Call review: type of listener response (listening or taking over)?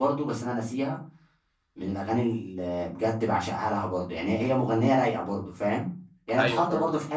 listening